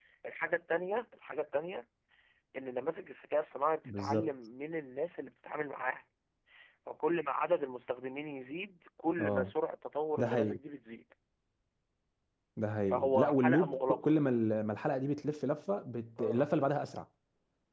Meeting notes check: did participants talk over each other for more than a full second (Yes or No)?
Yes